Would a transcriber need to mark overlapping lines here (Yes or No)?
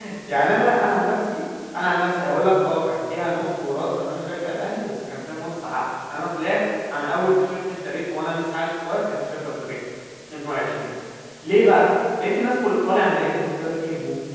No